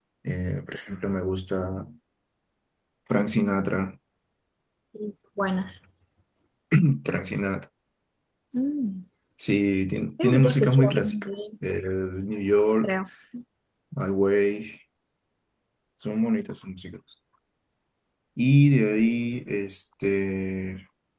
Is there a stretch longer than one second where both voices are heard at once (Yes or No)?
Yes